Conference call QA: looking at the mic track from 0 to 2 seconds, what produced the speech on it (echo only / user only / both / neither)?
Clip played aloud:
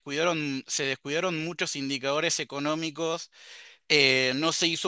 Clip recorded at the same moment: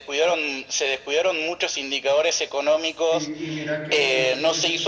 echo only